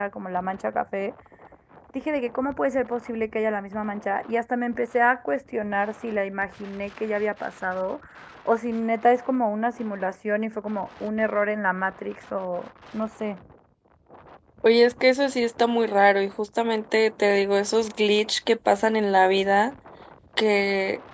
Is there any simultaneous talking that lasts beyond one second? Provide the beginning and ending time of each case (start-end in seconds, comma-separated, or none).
none